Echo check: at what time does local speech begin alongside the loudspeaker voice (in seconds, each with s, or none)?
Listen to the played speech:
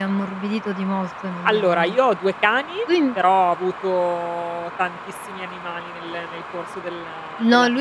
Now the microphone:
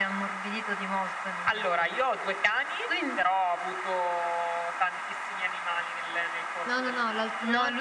6.6 s